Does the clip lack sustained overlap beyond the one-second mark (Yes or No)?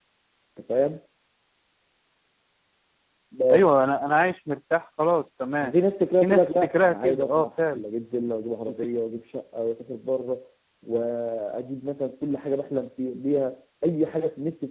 No